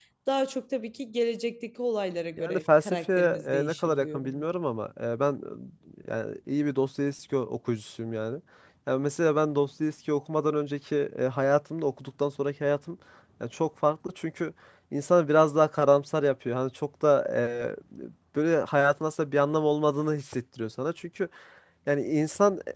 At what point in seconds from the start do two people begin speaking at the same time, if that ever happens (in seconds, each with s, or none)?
2.4 s